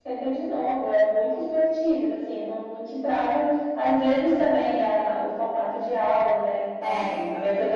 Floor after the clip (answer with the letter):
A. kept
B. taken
A